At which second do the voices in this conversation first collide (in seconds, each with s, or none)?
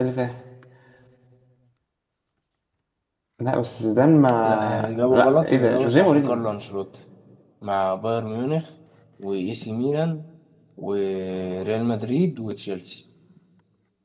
4.4 s